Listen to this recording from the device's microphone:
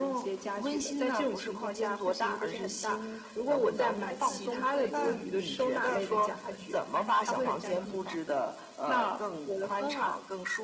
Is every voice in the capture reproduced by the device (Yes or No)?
No